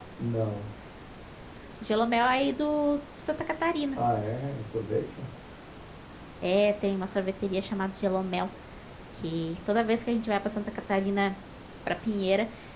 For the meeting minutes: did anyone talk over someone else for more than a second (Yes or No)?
No